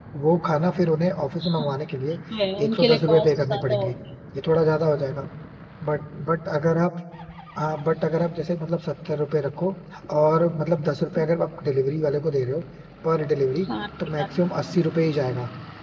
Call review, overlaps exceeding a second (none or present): present